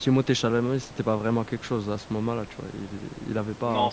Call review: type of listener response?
taking over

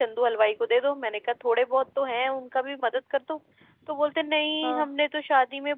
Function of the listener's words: listening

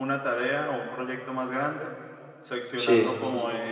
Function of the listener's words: listening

